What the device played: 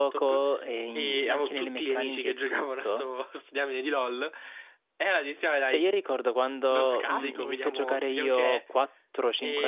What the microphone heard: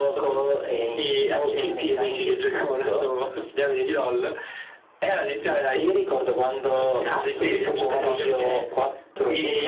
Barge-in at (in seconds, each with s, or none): 7.3 s